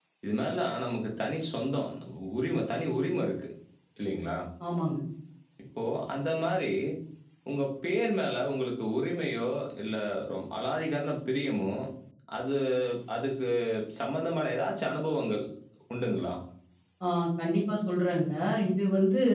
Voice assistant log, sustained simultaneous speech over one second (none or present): none